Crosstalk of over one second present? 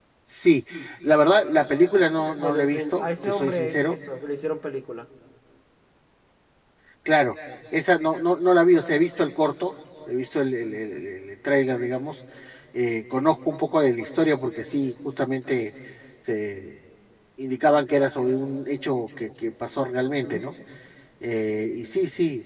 Yes, from 2.4 s

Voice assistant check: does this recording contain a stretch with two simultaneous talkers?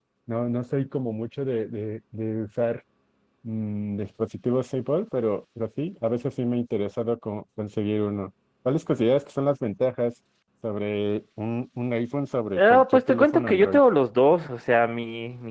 Yes, from 12.6 s

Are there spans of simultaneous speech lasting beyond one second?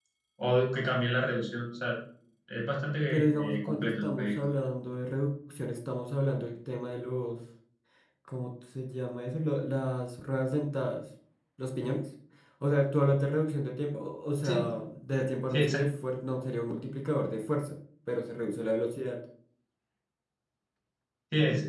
Yes, from 3.1 s

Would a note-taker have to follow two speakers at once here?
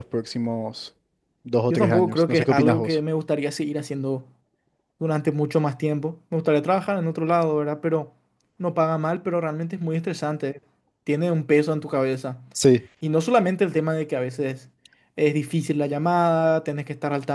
Yes, from 1.7 s

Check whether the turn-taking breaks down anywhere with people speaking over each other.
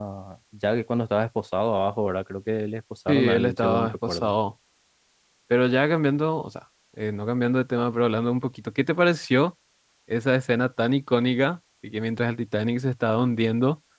Yes, from 3.1 s

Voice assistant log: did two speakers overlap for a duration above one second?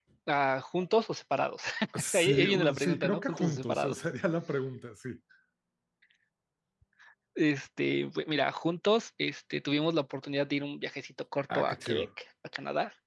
Yes, from 2.1 s

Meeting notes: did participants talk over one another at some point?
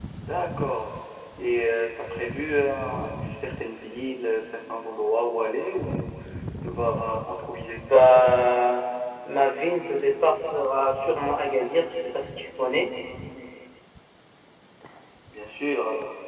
No

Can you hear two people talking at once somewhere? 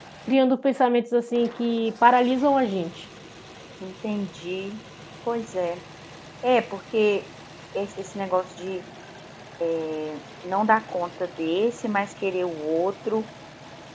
No

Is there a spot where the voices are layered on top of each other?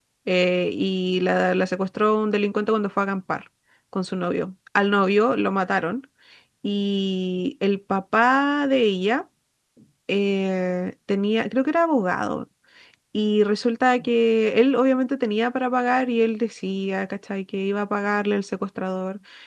No

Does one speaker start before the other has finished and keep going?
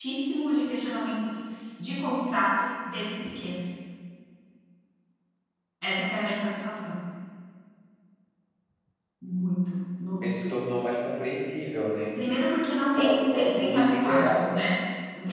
Yes, from 13.0 s

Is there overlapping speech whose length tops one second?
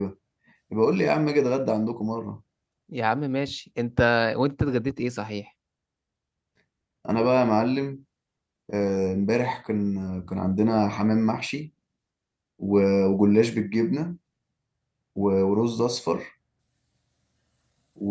No

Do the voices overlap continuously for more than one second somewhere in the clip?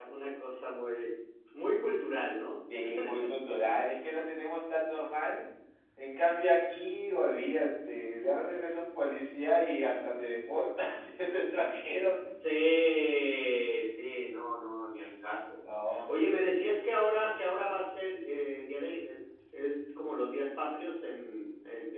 No

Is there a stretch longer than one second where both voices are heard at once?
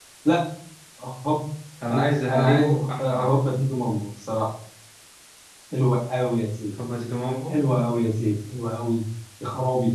Yes, from 1.9 s

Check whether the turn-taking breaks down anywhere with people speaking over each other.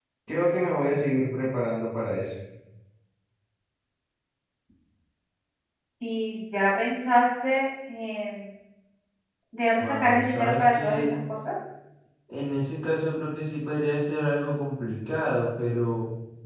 Yes, from 9.8 s

